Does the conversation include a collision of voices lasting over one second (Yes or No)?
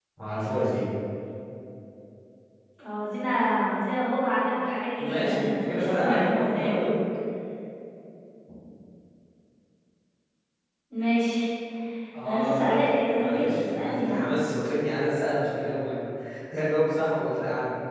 Yes